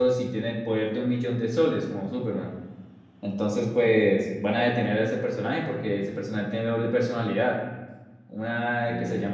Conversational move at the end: listening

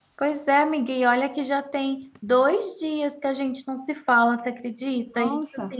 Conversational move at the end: listening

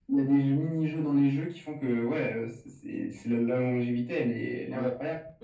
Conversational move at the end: taking over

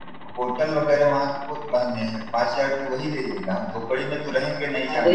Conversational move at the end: taking over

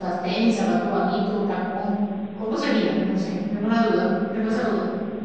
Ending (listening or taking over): taking over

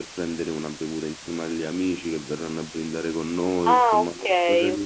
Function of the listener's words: taking over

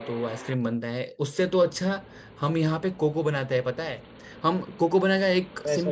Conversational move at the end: listening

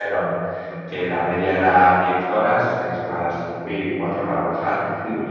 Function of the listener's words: listening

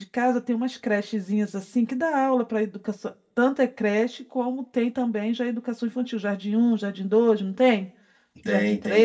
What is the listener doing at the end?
taking over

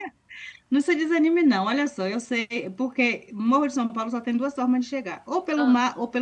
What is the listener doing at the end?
listening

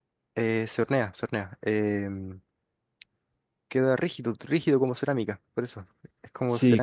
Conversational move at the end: taking over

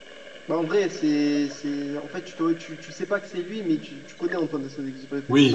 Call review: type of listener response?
taking over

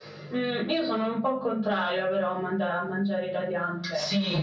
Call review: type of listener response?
taking over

